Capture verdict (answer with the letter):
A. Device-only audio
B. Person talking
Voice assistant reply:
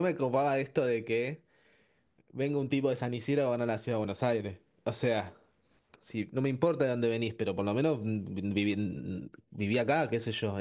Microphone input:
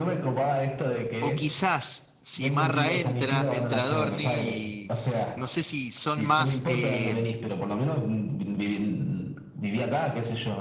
B